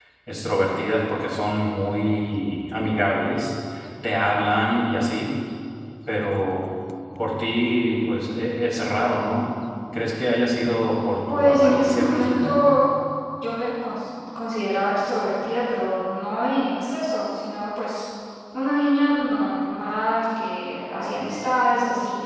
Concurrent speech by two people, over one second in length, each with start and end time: 11.3-12.5

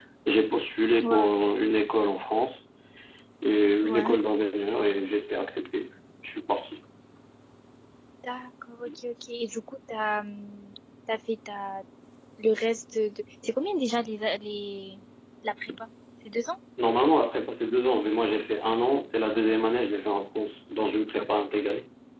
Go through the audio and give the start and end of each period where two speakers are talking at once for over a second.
none

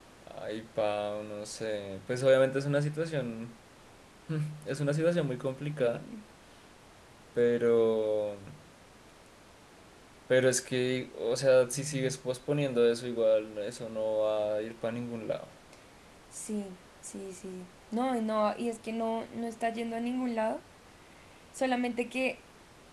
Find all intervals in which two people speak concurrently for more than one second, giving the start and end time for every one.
none

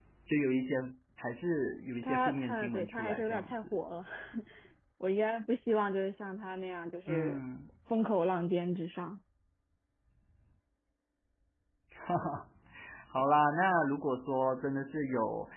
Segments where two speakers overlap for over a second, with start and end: 2.0-3.6

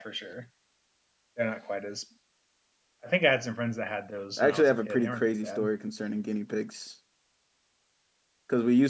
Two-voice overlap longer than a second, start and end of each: 4.4-5.7

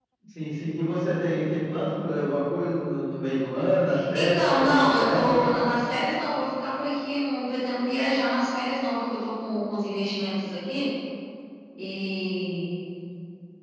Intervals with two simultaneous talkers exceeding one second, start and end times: 4.1-5.5

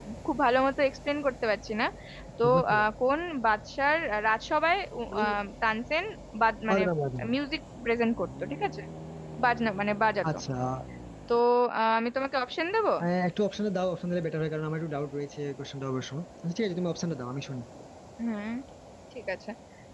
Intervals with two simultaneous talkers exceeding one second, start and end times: none

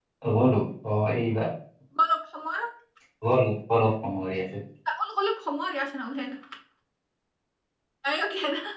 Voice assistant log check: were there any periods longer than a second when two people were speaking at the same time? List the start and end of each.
none

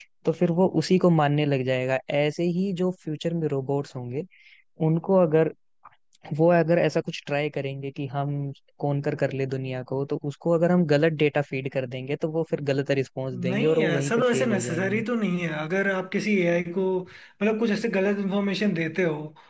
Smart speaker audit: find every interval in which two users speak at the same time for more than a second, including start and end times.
13.5-15.0

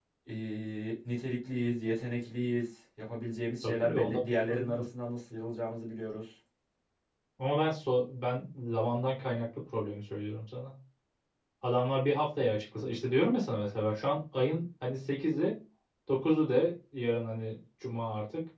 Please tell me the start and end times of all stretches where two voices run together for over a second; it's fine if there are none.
3.6-4.8

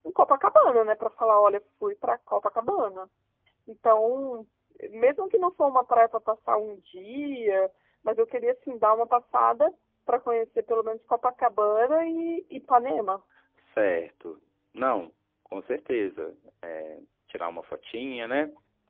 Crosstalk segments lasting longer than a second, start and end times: none

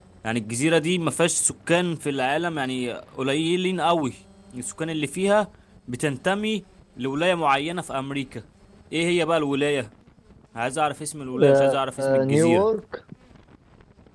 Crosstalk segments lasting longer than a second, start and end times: 11.4-12.7

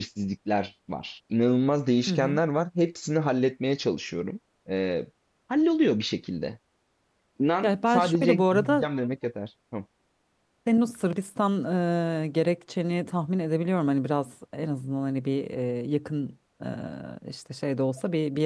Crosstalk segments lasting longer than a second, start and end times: 7.6-8.8

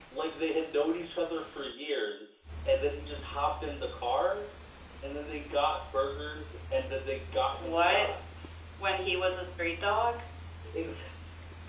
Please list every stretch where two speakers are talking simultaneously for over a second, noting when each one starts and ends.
none

